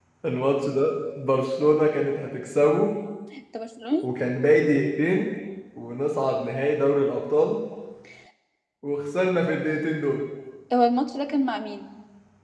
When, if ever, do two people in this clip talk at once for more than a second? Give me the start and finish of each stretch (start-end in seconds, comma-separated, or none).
none